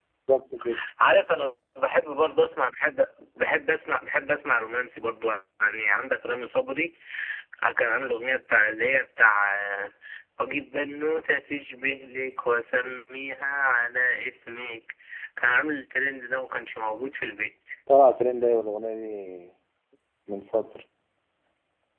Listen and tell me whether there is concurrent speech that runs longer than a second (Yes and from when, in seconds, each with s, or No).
No